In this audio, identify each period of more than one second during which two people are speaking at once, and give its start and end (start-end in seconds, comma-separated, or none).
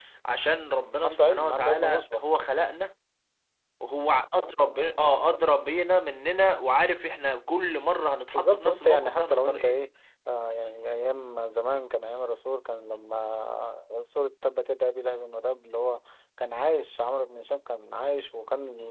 1.0-2.2, 8.3-9.8